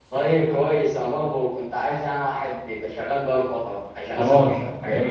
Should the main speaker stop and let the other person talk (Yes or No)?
Yes